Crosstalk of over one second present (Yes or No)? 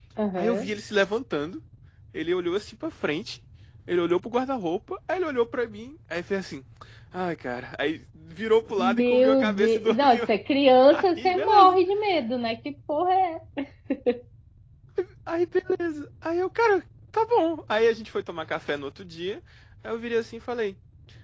Yes